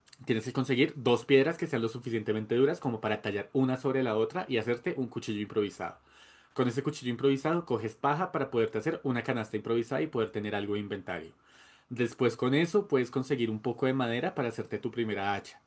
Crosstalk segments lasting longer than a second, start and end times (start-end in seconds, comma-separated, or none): none